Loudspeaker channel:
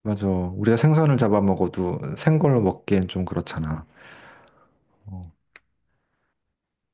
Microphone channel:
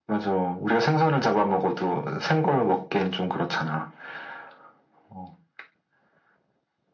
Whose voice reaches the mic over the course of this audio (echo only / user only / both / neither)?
echo only